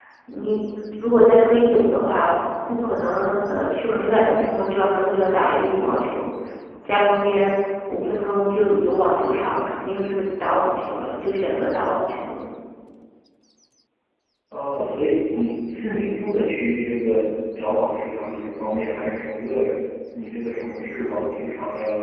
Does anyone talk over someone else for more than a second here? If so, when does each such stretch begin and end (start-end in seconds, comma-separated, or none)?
none